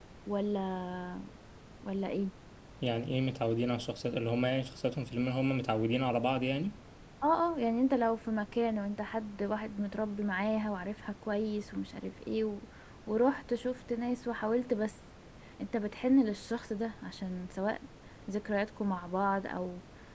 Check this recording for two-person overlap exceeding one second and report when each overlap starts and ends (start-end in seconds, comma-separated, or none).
none